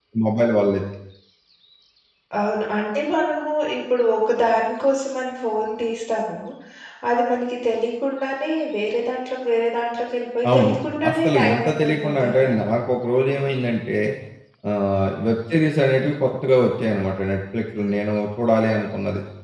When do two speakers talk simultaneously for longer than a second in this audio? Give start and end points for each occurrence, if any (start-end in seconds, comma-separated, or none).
11.1-12.5